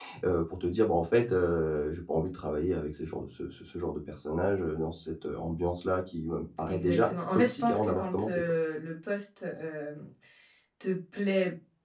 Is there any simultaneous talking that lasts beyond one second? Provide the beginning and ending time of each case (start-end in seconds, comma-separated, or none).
6.7-8.4